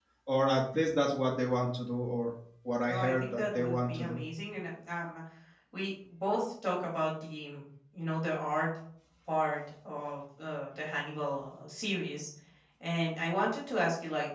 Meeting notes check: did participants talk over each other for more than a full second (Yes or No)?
Yes